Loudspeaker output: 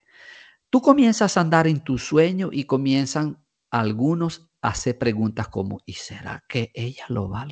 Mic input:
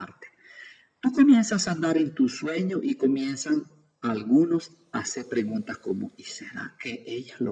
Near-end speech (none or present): none